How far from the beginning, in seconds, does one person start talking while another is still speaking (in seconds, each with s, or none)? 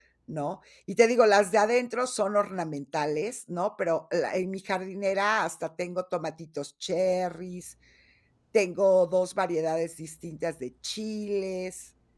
none